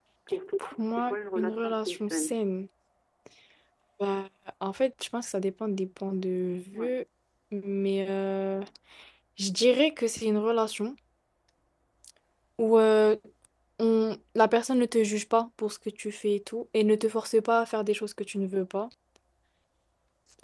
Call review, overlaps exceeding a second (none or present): present